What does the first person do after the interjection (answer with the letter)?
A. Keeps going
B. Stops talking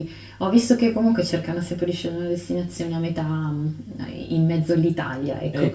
B